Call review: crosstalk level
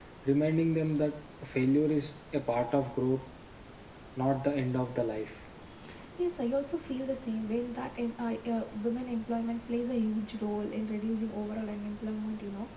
none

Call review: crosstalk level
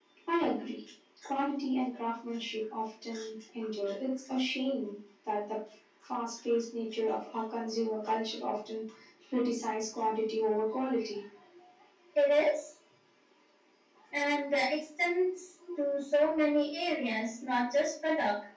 none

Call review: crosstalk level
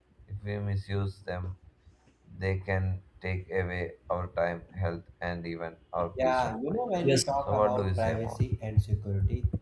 present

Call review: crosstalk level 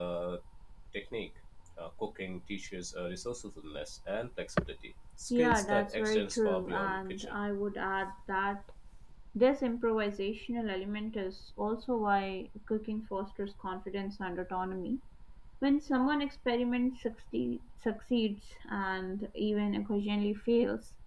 present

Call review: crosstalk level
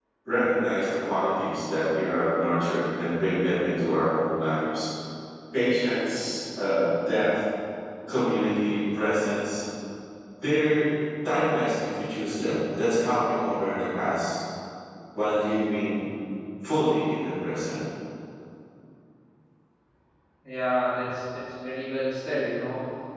none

